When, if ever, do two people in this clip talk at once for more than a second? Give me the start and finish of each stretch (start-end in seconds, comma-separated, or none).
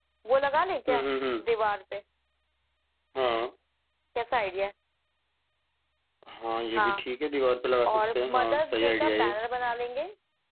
7.9-9.4